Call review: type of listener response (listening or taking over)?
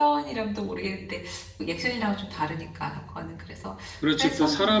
taking over